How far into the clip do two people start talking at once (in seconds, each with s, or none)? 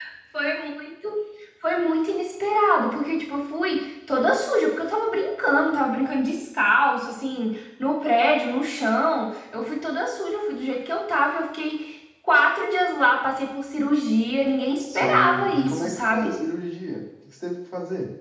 14.8 s